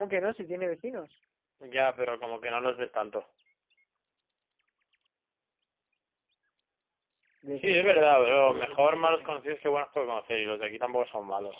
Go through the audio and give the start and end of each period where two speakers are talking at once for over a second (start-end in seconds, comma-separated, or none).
7.6-9.4